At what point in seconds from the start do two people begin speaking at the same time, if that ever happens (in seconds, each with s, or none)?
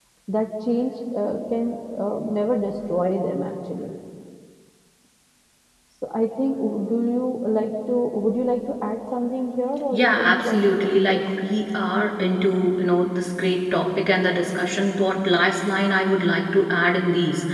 9.9 s